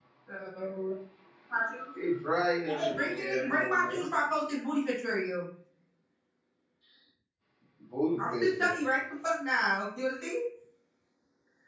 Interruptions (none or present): present